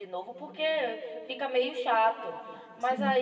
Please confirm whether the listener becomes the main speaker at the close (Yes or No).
No